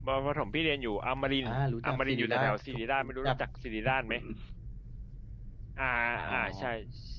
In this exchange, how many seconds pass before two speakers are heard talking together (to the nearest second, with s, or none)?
1 s